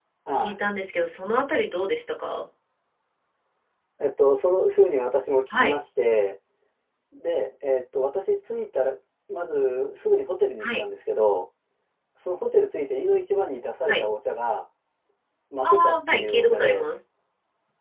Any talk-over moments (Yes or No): Yes